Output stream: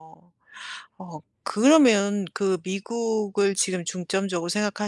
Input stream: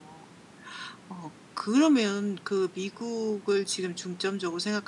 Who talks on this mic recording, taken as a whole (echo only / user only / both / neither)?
echo only